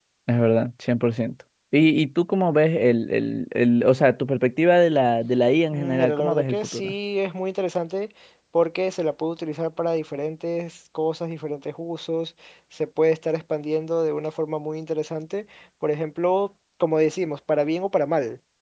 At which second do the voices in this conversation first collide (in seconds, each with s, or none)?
5.7 s